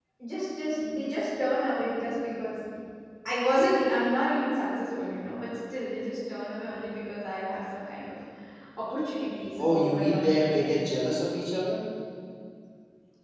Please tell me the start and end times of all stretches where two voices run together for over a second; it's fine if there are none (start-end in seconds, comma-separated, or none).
9.6-11.0